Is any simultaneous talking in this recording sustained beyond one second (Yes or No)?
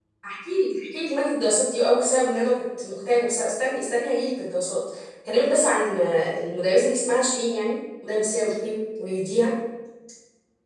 No